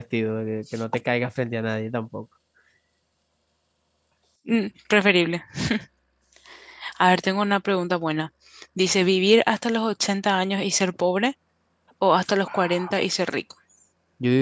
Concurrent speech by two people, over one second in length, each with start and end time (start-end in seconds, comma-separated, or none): none